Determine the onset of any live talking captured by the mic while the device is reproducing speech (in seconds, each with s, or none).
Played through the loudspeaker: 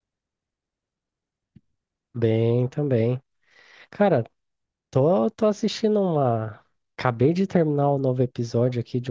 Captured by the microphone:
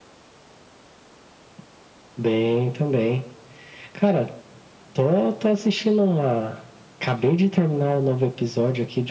none